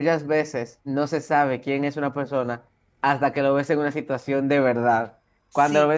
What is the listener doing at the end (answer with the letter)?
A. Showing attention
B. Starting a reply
A